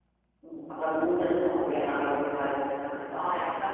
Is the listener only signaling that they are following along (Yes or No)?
No